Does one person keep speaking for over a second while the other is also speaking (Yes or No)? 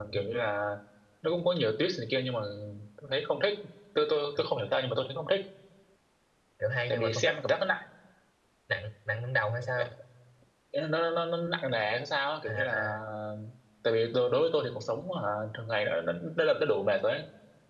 No